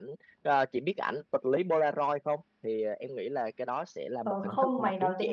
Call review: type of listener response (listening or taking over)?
taking over